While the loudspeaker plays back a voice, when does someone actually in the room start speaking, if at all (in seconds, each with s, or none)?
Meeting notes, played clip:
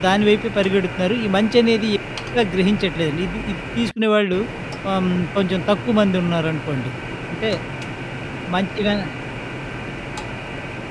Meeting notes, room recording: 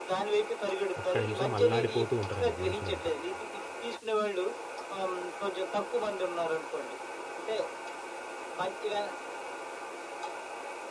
1.0 s